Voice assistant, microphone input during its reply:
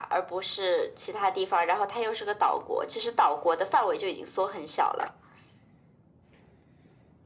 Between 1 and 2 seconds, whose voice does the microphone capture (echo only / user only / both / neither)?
echo only